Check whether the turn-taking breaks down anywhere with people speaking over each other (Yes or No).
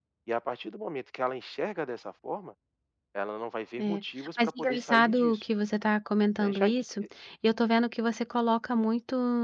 Yes